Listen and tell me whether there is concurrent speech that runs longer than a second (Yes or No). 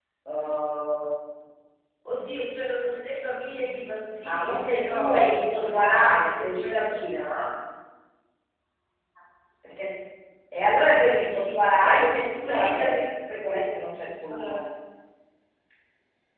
Yes